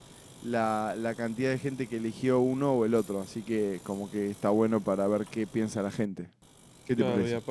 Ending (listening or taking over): taking over